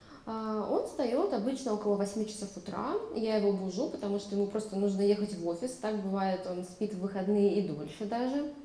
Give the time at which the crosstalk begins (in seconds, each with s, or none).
none